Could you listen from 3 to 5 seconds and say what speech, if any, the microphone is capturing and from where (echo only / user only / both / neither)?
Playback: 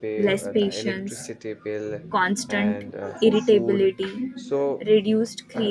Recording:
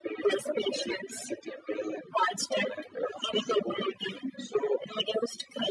echo only